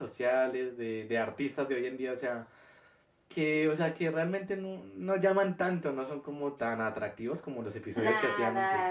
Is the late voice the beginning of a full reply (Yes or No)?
Yes